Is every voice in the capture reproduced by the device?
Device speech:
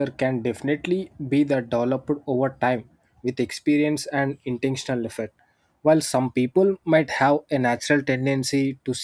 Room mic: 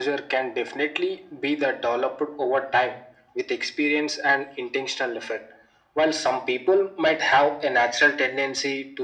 Yes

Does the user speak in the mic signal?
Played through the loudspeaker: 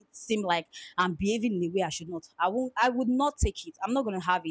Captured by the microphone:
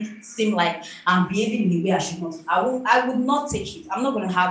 No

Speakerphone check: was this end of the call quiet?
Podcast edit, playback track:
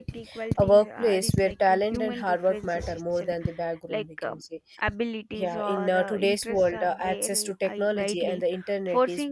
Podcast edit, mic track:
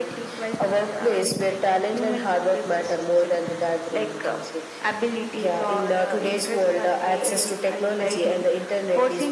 Yes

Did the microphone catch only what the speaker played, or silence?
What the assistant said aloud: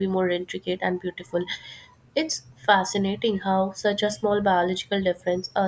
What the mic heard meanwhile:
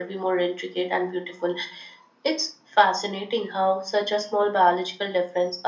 Yes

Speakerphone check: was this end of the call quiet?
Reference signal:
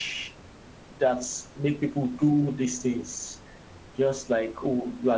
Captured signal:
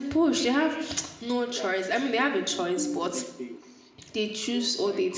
No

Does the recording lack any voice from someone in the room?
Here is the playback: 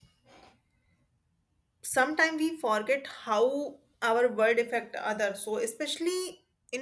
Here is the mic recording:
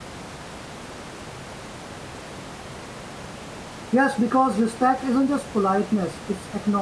No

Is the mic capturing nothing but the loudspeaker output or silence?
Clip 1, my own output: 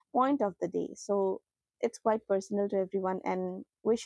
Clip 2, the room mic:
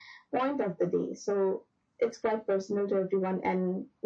Yes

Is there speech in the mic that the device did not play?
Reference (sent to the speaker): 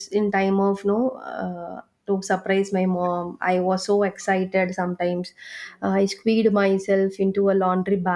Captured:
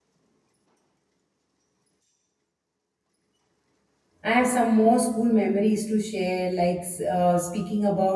Yes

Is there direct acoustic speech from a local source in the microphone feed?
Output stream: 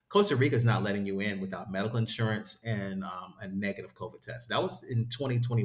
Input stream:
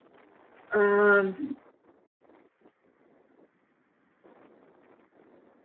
Yes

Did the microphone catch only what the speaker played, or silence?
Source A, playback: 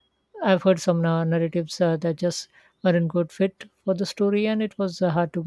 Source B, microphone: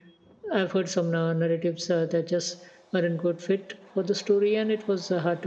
Yes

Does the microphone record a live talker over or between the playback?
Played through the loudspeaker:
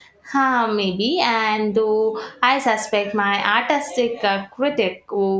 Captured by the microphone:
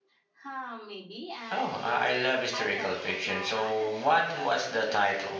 Yes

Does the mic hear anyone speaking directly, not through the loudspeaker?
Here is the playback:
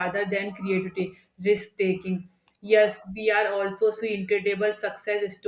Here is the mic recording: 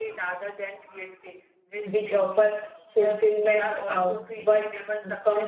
Yes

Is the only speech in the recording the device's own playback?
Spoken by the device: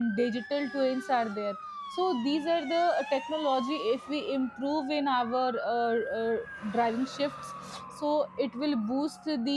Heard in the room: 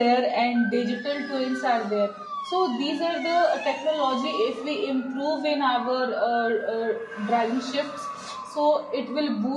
Yes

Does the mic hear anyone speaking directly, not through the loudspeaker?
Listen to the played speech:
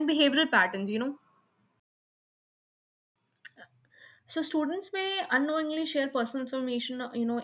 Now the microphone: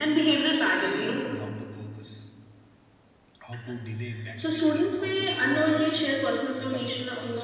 Yes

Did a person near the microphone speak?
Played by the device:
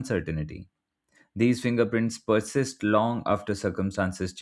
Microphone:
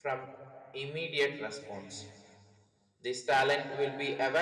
Yes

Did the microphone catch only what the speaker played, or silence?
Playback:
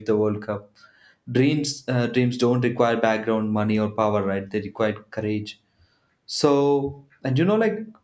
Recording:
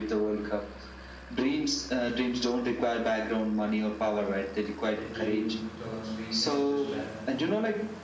No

